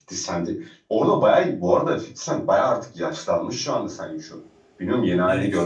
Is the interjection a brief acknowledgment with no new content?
No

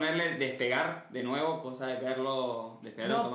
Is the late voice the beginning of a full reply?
Yes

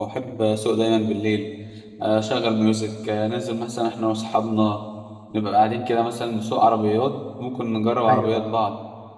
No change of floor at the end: Yes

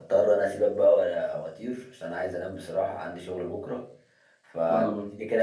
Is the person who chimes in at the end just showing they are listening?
Yes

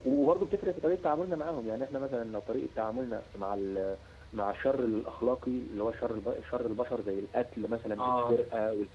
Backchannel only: Yes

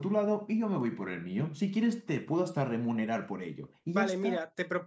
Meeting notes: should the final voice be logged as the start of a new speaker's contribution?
Yes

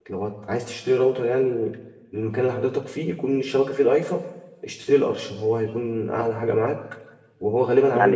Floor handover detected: Yes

